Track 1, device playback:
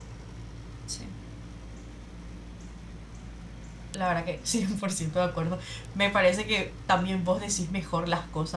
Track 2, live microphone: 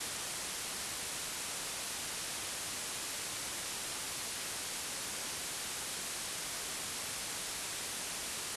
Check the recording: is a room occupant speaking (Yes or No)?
No